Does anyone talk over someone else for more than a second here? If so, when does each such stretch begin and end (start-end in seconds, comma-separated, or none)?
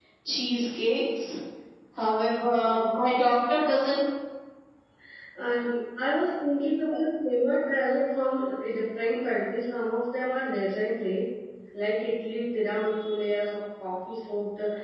none